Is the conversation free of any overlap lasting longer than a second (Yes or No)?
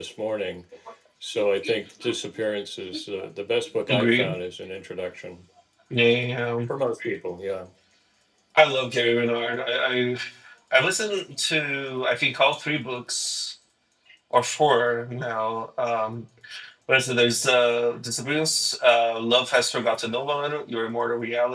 Yes